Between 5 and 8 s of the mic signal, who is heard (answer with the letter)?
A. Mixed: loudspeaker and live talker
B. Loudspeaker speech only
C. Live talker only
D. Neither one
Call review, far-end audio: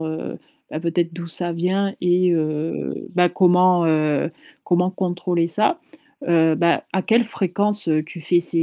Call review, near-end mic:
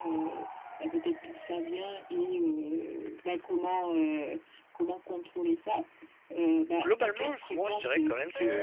A